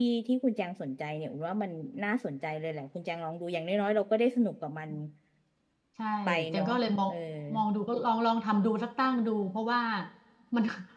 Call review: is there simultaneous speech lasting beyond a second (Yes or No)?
No